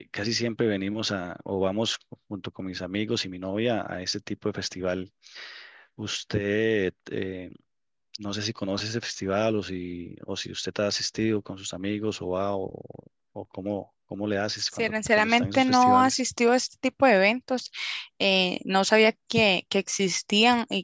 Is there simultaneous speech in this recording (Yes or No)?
Yes